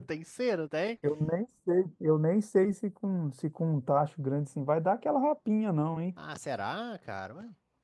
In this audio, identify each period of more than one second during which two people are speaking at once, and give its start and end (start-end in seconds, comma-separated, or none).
none